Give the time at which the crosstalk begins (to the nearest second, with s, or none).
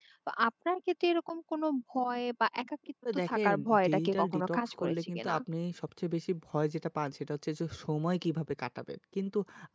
3 s